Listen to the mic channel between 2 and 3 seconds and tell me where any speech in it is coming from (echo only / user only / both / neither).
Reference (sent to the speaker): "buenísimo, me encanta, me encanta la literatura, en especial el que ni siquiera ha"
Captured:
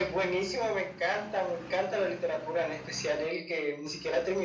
echo only